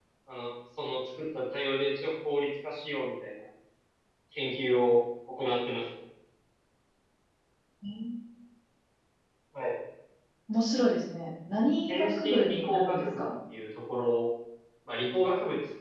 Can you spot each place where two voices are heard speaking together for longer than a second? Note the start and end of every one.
11.9-13.2

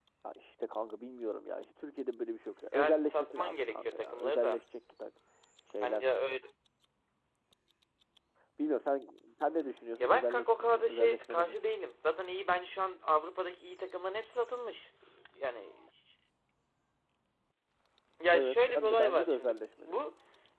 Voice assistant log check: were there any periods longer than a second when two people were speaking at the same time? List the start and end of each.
2.7-4.6, 10.0-11.6, 18.3-20.0

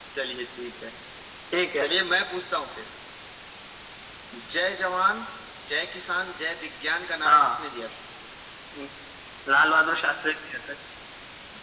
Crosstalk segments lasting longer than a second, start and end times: none

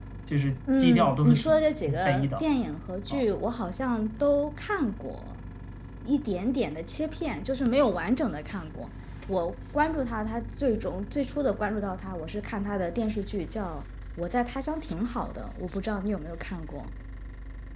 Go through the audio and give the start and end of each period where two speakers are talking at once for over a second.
0.8-2.3

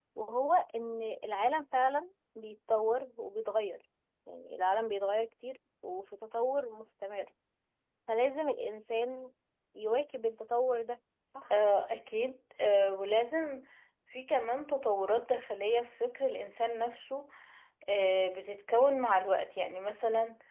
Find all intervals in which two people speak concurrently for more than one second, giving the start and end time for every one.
none

